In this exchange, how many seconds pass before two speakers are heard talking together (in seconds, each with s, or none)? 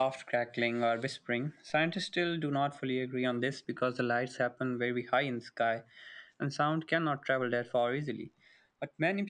none